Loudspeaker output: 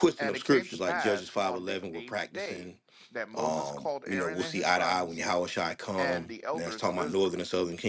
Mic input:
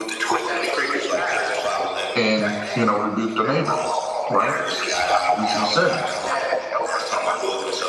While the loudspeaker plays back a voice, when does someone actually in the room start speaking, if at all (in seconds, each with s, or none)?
2.1 s